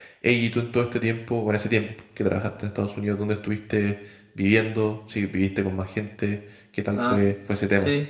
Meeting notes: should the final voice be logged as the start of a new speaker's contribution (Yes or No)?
Yes